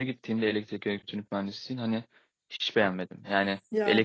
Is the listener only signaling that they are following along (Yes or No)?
Yes